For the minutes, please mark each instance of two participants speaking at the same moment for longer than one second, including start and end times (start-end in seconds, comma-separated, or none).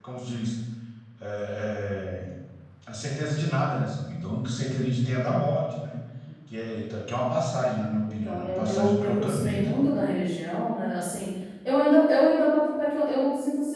8.1-9.7